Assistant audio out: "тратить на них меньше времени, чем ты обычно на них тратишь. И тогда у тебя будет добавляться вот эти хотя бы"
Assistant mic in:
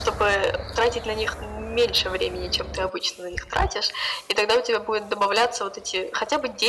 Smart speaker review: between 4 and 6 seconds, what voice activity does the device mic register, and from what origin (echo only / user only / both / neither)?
echo only